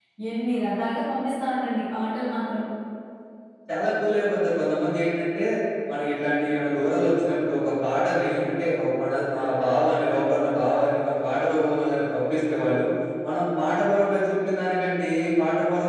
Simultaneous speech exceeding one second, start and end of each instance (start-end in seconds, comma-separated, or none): none